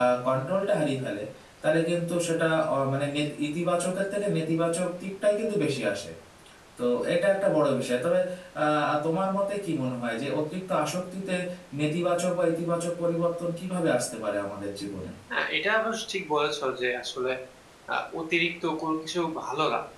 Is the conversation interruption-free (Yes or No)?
Yes